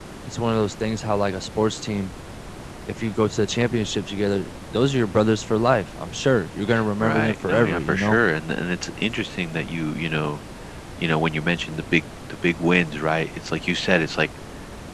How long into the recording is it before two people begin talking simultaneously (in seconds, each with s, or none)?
7.0 s